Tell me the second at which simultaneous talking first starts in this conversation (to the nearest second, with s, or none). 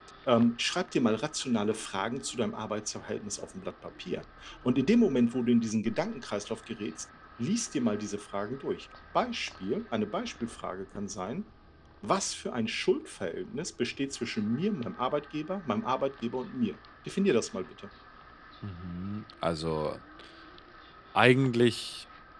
none